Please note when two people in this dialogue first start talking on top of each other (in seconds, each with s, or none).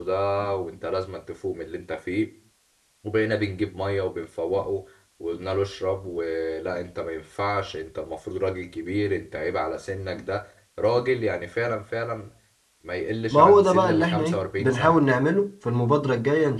13.3 s